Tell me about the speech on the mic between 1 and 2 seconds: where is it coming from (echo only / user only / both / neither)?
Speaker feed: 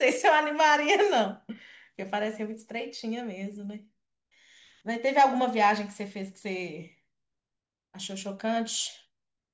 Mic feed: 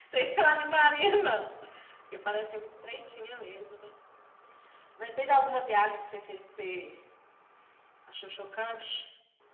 echo only